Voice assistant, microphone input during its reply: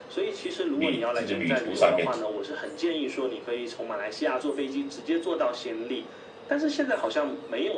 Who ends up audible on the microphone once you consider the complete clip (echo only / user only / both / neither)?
both